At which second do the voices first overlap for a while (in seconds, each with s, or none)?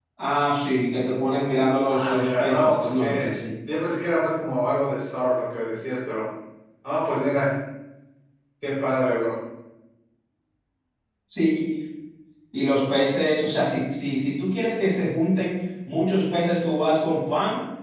1.9 s